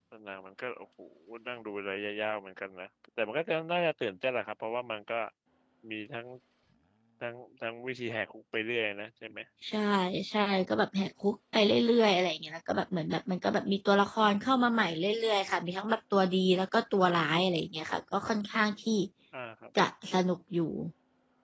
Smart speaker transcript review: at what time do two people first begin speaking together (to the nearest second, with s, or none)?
none